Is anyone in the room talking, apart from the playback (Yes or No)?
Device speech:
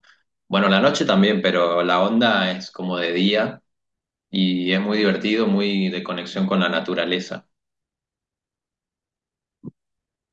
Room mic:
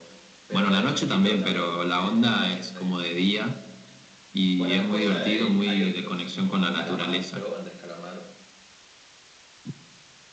Yes